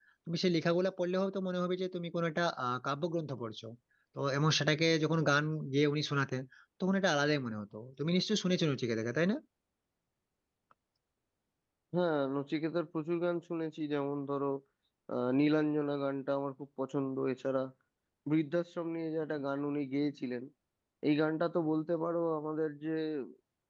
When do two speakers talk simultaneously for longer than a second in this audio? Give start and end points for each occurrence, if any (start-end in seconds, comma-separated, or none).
none